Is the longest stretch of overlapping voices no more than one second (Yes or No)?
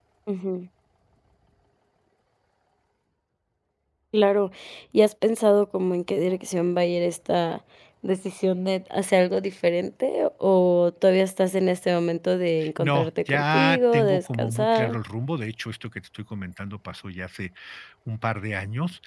No